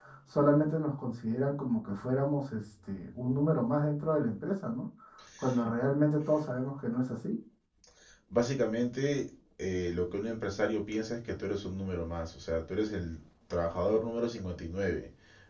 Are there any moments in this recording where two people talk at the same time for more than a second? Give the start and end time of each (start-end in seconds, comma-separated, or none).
none